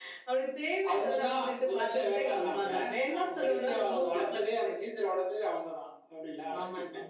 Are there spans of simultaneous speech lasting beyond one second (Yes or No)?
Yes